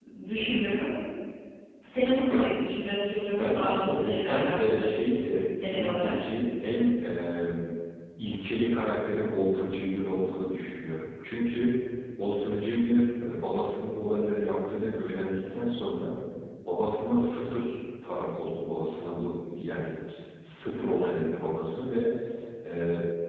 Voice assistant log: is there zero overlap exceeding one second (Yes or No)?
No